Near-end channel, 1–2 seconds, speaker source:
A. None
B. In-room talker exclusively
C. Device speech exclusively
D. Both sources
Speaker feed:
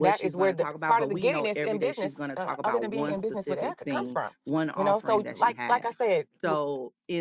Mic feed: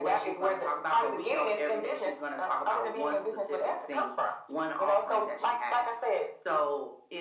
C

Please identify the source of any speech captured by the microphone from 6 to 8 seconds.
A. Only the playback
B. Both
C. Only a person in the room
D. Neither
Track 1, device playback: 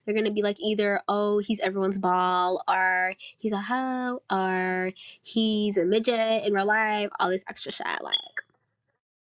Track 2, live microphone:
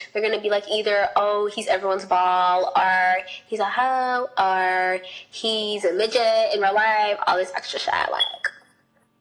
A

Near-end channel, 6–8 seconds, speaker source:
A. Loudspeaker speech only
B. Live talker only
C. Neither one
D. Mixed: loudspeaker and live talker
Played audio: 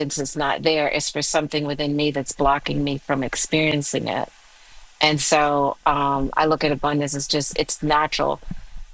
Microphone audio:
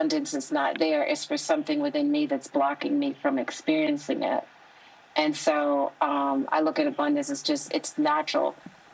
A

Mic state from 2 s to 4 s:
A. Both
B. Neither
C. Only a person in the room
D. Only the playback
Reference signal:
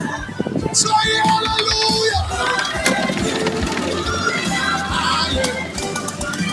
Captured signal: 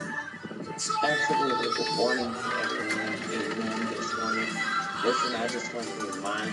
A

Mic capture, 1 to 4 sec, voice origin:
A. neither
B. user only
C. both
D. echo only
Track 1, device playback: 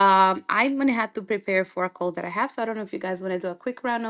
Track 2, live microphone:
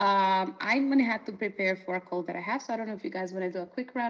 D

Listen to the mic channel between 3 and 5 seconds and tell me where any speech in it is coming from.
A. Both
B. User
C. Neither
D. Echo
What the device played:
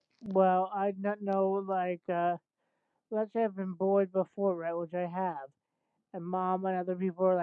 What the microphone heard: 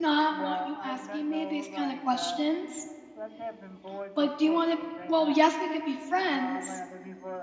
A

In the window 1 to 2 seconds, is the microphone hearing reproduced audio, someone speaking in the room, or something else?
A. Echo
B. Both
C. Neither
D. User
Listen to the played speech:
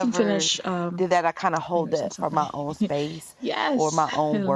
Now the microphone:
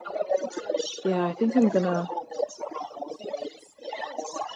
B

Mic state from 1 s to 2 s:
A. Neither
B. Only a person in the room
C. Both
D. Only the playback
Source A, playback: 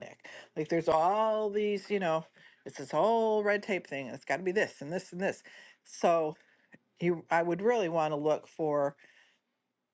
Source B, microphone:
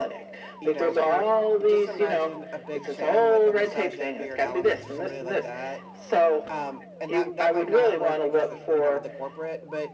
C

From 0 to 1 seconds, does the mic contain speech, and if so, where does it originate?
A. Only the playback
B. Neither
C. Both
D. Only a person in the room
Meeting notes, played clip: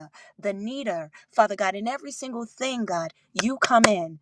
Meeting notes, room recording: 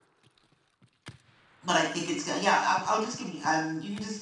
B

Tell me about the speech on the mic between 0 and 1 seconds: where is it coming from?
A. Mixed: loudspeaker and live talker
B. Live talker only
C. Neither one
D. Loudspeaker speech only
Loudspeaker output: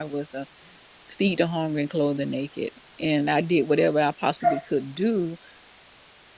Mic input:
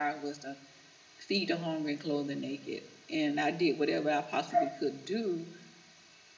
D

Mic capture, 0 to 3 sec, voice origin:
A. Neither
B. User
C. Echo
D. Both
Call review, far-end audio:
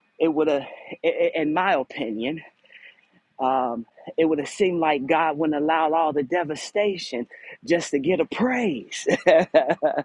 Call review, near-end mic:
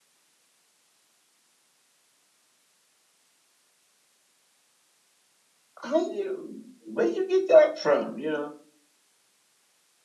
A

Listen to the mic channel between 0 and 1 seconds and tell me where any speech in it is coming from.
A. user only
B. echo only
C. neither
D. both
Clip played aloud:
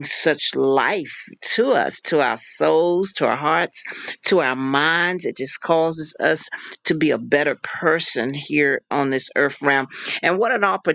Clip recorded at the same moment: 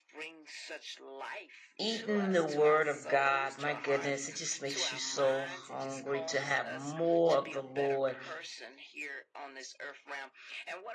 B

